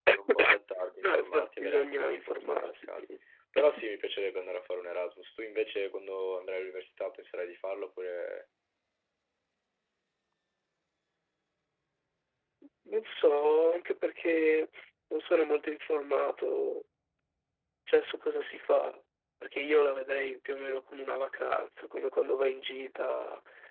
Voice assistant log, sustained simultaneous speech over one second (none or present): present